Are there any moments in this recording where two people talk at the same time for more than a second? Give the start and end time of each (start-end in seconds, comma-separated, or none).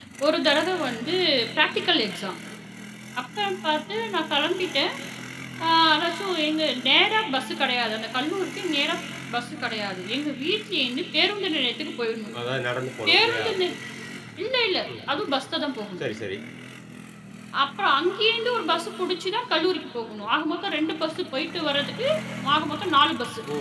none